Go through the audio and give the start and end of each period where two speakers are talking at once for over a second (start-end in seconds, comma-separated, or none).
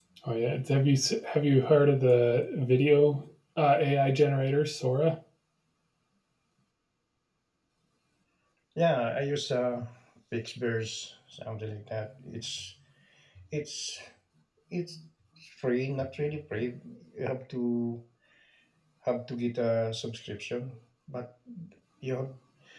none